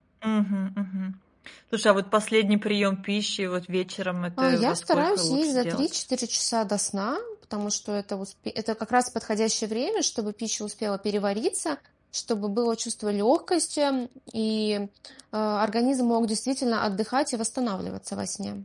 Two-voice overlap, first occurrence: 4.4 s

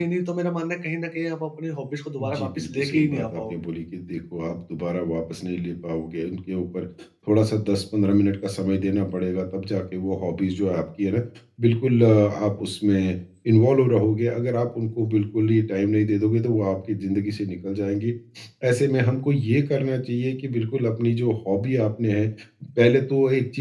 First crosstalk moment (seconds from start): 2.2 s

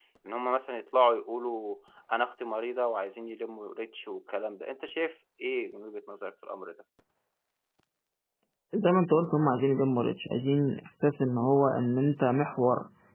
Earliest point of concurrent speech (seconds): none

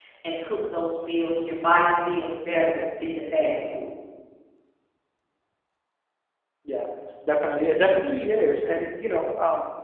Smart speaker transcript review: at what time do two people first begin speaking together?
none

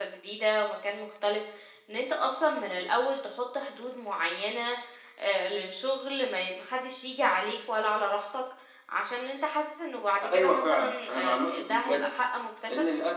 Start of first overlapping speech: 10.2 s

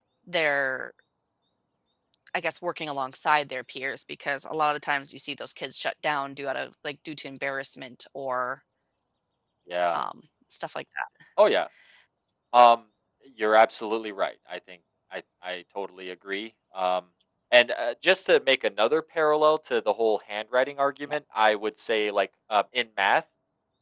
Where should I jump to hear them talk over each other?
none

